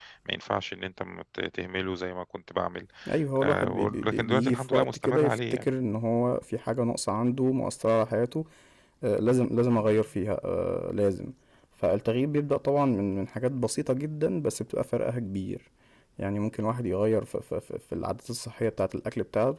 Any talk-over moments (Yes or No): Yes